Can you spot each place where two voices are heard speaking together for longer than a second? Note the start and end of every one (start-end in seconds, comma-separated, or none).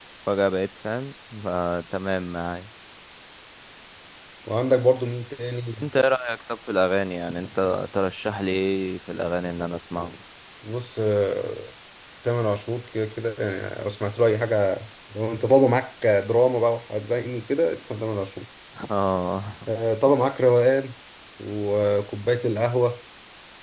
none